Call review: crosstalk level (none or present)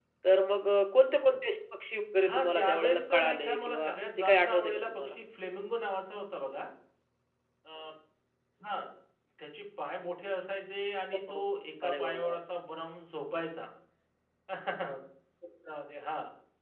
present